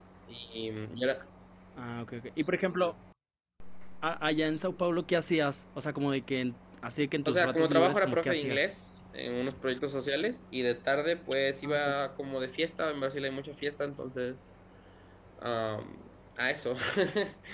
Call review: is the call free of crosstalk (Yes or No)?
No